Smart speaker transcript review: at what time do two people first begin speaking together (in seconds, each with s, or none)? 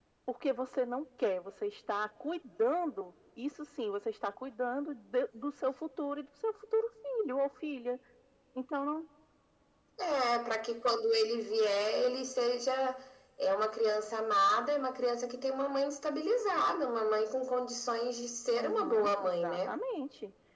18.5 s